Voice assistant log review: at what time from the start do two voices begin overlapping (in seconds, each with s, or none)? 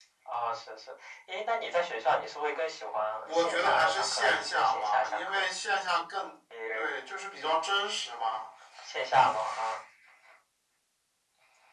3.2 s